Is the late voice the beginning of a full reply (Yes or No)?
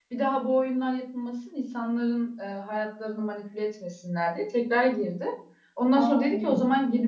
No